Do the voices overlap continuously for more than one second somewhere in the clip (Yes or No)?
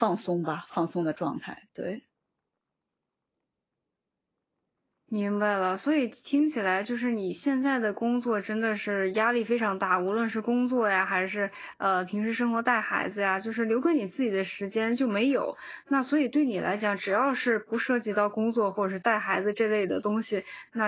No